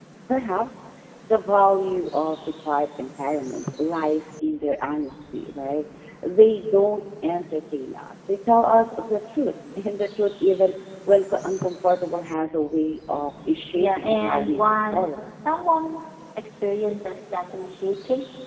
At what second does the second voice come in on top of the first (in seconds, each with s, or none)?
13.7 s